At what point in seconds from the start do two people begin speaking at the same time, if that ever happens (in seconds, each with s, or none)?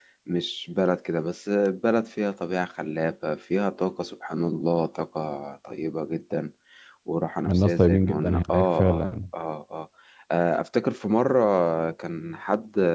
7.5 s